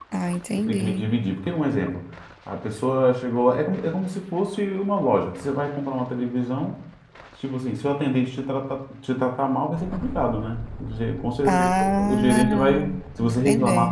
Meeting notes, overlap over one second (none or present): present